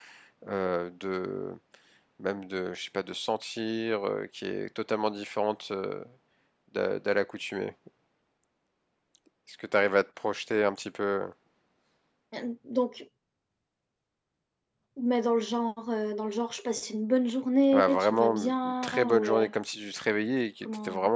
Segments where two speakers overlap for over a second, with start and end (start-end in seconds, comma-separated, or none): 17.7-19.5